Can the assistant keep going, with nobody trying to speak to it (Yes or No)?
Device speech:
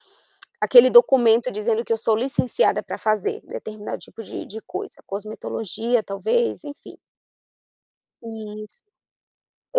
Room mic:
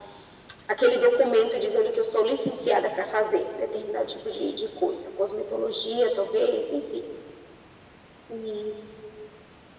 Yes